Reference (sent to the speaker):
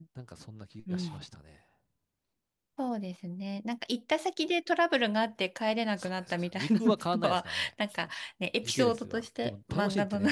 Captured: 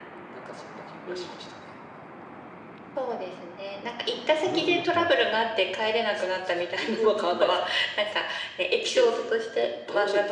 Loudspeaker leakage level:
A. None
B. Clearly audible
B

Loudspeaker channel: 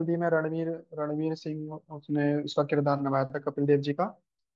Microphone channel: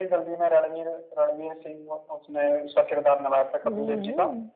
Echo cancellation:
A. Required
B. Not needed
A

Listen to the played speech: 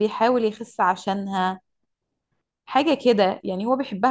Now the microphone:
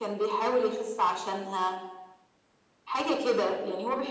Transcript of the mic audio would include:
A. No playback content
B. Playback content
B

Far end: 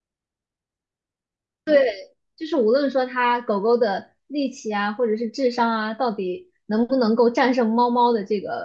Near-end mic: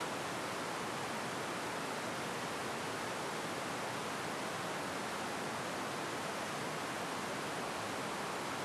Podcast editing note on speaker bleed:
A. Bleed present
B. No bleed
B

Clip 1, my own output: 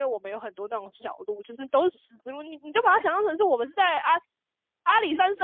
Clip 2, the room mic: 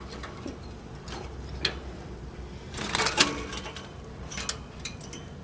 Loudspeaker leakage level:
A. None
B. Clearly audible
A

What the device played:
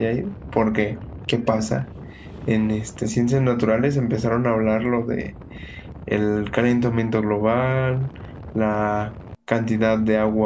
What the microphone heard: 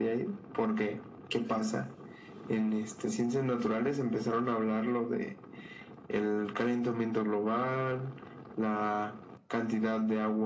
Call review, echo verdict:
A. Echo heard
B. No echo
A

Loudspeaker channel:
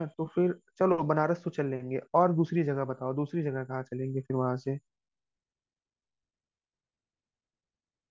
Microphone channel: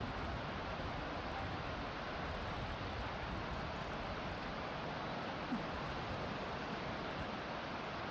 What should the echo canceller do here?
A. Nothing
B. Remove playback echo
A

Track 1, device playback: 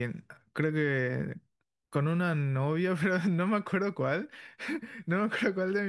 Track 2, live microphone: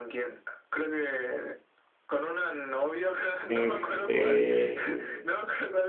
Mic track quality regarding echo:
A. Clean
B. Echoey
B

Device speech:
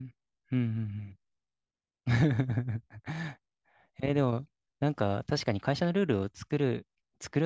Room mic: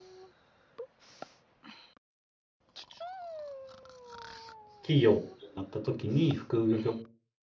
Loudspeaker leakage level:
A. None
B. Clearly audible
A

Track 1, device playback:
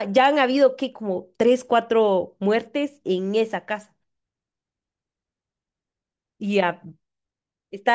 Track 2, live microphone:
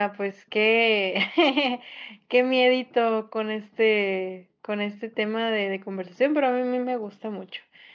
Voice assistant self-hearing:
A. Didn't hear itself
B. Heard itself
A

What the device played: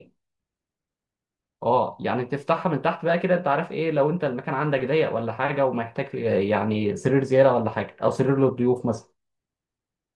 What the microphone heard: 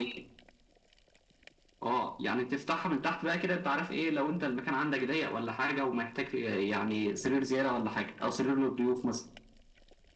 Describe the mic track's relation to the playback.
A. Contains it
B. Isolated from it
A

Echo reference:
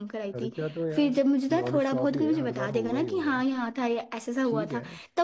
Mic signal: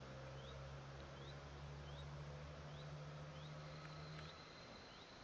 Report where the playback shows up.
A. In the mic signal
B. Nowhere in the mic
B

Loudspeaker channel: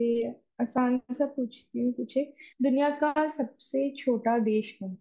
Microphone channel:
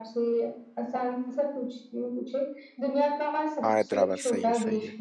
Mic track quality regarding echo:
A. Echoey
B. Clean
A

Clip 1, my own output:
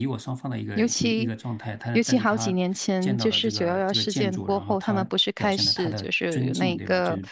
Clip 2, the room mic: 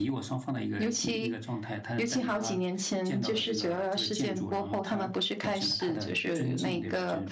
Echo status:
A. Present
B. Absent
A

